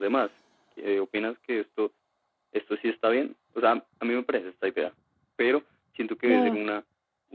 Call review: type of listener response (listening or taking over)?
listening